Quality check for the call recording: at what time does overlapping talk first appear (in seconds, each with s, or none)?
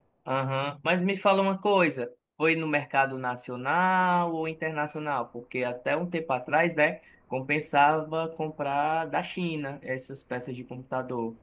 none